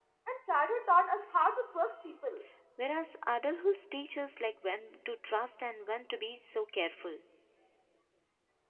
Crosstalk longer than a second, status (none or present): none